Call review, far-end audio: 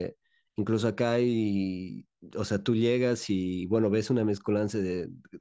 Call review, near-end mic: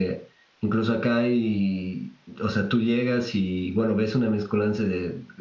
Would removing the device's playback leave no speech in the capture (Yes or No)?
Yes